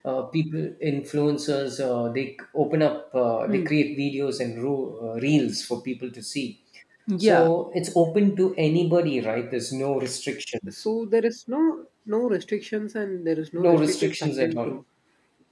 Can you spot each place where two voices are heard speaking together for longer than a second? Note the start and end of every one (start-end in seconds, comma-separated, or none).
13.6-14.8